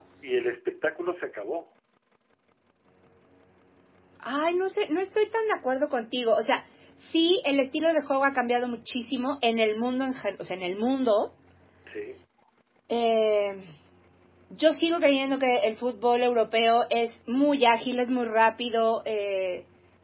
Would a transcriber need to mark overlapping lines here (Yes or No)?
No